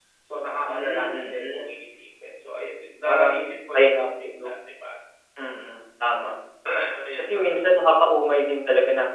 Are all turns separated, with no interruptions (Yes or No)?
No